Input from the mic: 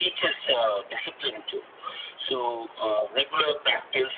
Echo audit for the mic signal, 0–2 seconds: echo only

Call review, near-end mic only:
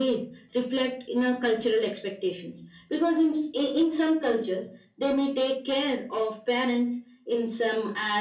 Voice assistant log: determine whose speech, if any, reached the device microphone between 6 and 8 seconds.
echo only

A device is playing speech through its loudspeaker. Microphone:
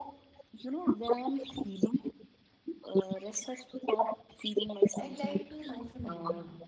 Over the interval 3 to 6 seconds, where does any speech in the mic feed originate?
both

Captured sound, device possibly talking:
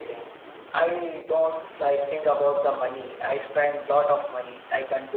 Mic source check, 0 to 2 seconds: echo only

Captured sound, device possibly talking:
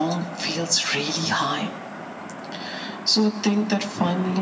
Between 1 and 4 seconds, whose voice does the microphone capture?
echo only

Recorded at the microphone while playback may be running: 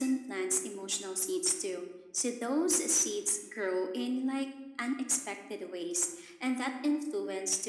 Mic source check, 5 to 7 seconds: echo only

